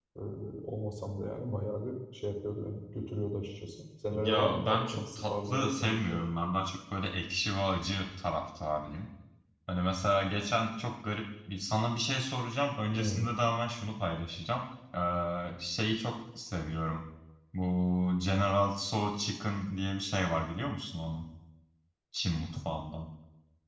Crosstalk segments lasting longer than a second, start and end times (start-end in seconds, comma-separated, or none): 4.1-6.2